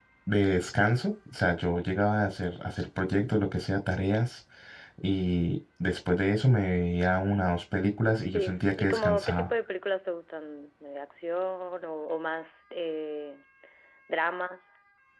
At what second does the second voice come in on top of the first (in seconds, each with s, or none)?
8.3 s